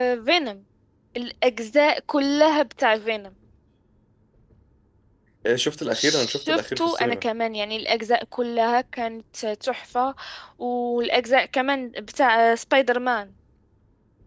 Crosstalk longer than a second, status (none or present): present